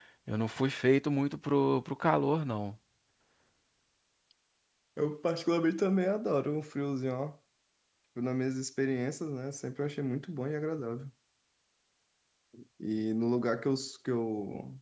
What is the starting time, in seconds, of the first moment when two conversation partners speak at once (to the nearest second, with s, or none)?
none